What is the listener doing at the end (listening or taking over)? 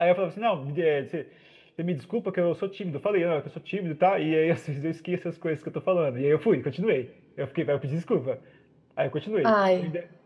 listening